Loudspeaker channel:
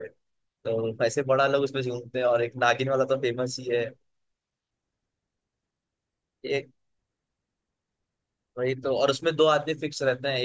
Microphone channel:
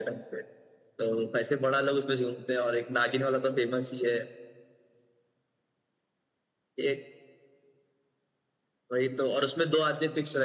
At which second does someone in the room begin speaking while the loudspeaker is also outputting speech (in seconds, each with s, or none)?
none